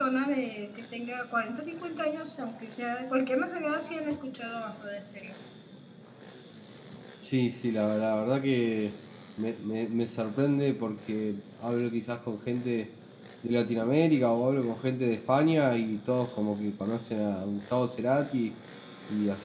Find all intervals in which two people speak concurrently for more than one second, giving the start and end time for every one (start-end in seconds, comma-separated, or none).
none